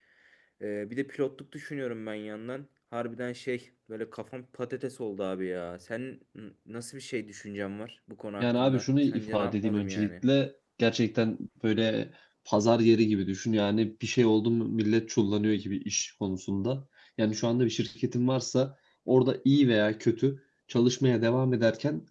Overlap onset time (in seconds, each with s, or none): 8.4 s